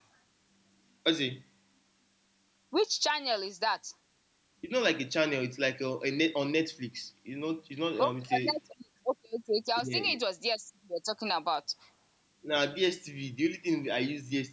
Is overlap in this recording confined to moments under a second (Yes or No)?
Yes